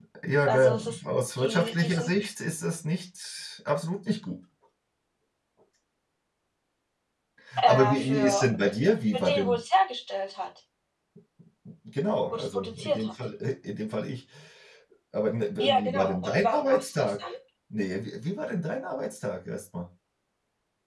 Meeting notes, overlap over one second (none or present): present